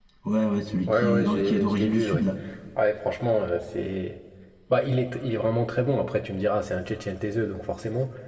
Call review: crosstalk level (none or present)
present